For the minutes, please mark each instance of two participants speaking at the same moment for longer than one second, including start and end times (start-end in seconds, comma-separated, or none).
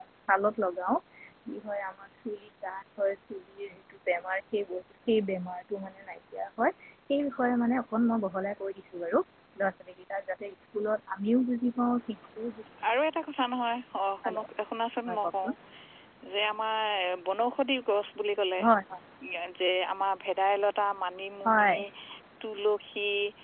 none